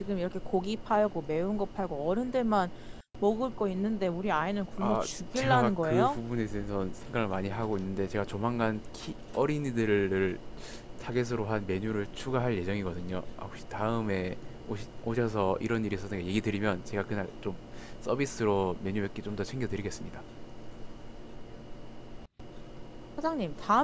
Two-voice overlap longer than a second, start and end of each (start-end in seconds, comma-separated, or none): 4.8-6.2